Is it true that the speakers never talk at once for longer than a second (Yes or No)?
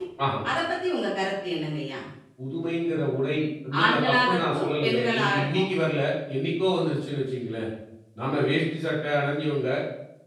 No